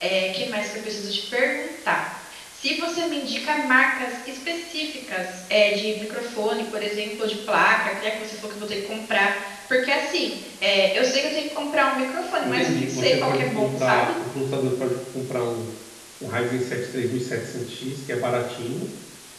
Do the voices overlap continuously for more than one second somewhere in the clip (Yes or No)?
Yes